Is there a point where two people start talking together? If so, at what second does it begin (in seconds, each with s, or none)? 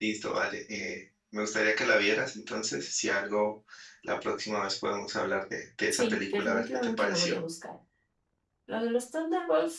5.9 s